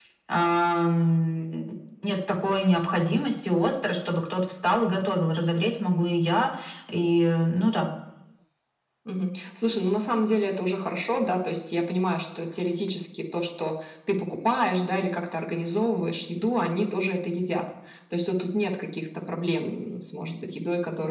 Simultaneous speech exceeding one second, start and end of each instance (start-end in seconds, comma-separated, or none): none